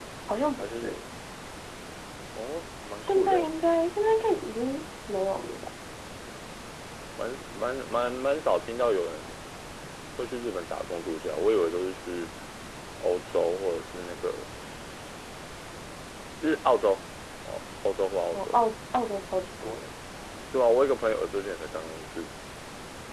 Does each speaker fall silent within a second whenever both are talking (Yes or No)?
Yes